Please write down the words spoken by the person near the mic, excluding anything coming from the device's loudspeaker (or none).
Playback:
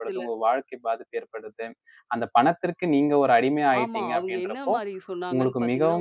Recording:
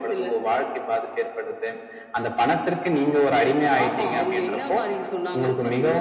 none